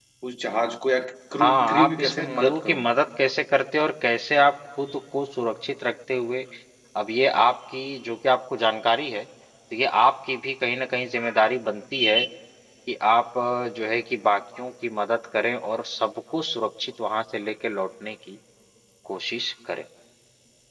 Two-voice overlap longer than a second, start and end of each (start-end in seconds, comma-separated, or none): 1.3-2.9